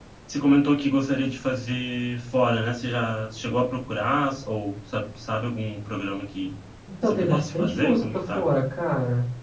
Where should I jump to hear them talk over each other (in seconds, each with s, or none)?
7.0 s